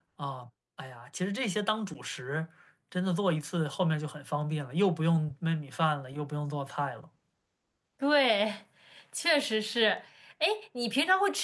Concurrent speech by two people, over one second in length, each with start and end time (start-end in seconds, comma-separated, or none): none